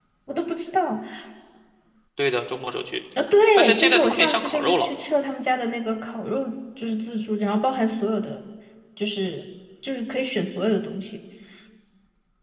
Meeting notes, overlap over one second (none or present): present